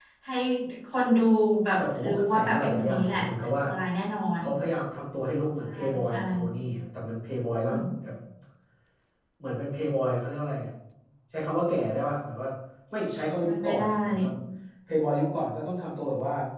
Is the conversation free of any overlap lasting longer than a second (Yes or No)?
No